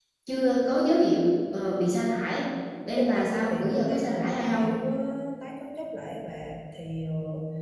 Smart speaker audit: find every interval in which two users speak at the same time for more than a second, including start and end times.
3.0-4.6

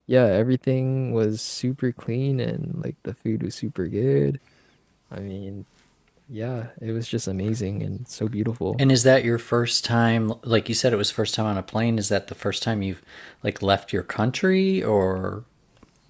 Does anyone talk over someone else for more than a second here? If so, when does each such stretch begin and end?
none

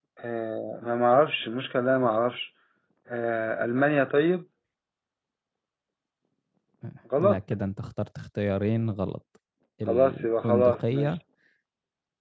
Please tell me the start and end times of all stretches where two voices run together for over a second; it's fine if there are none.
9.9-11.2

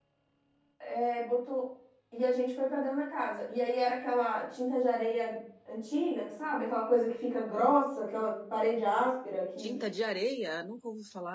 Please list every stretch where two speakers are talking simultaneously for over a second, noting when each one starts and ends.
none

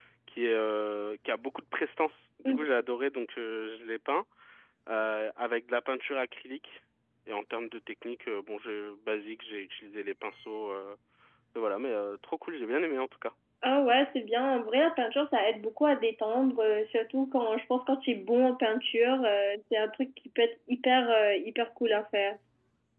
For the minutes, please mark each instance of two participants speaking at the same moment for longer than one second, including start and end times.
none

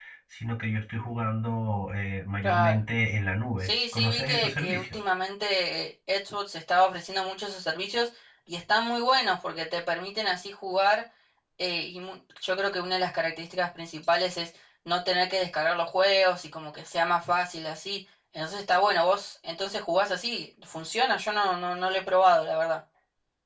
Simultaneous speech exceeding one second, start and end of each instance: 3.6-5.0

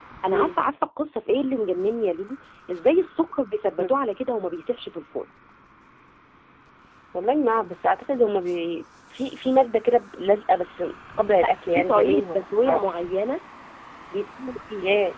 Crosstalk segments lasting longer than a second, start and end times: 11.4-13.0

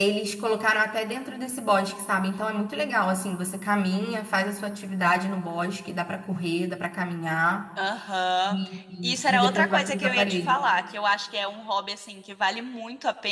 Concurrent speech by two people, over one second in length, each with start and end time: 9.0-10.6

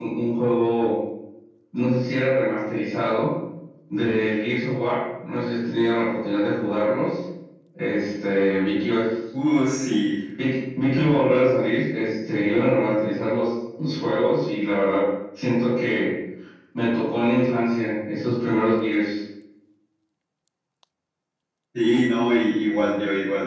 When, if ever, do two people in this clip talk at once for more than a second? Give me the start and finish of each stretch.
none

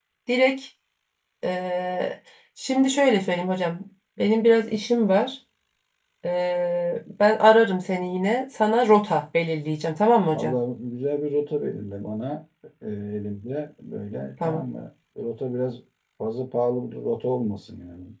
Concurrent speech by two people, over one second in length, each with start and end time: none

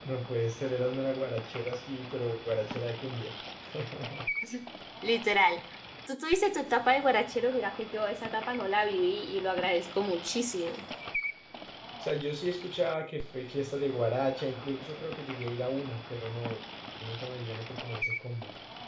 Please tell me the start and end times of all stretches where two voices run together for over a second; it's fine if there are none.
none

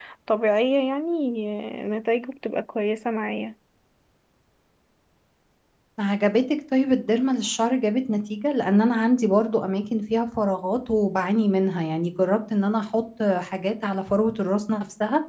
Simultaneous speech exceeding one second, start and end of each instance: none

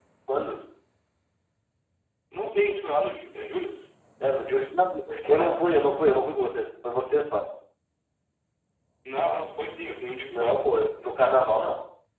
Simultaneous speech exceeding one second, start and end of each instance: none

